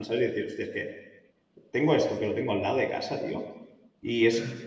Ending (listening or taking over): listening